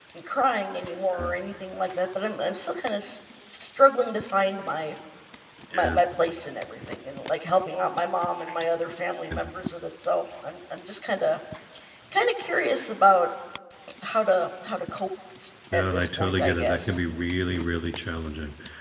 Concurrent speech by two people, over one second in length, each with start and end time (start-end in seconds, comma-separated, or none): 15.7-17.0